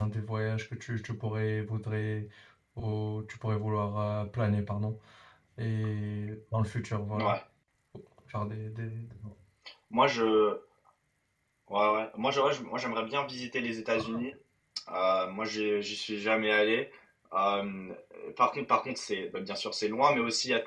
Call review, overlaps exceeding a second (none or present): none